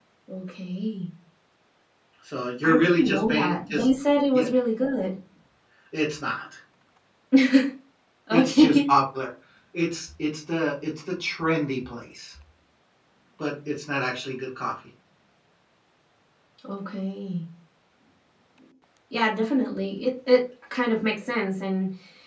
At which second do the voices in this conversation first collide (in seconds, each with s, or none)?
2.6 s